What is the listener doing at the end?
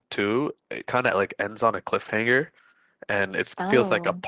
listening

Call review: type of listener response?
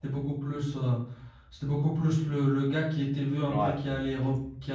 listening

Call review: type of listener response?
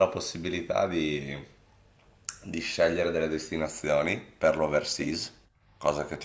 listening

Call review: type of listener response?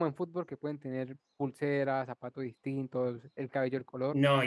taking over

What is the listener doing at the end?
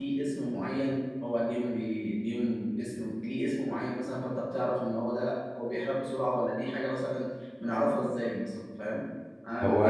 listening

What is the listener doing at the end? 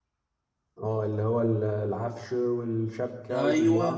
taking over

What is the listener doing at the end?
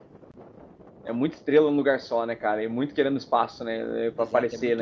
taking over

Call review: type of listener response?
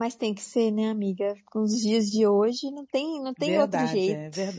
taking over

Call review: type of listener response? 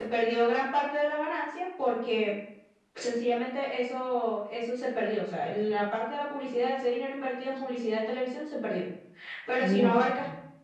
listening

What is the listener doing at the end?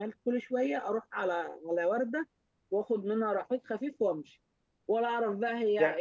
taking over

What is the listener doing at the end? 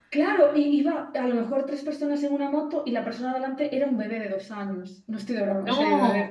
listening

